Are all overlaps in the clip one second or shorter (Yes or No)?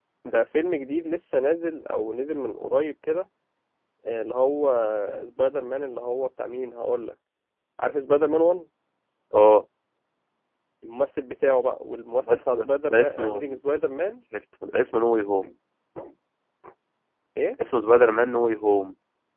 No